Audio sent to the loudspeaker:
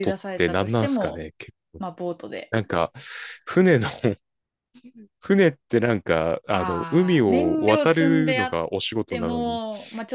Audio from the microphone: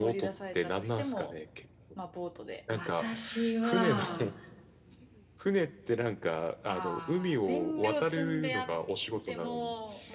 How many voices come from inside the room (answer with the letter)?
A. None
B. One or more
B